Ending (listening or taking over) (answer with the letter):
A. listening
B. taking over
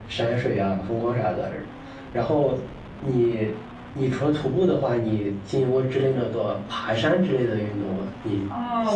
B